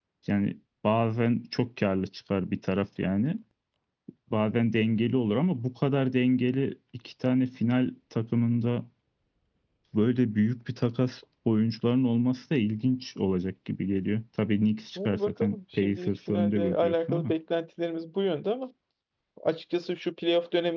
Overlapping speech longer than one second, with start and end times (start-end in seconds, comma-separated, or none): 15.0-17.3